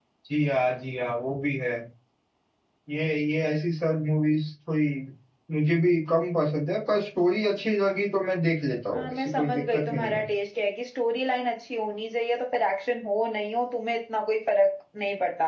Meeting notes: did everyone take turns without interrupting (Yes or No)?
No